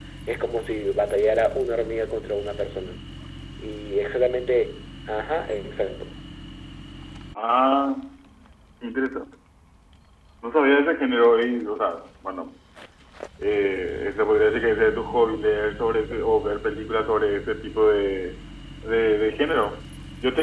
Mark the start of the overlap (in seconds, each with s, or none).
none